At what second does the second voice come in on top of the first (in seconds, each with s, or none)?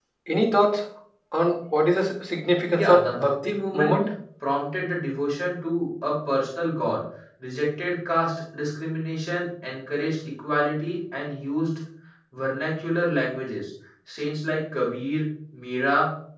2.7 s